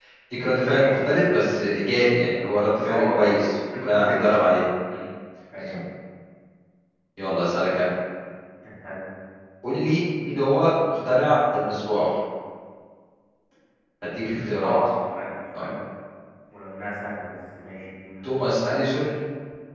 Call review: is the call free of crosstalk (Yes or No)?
No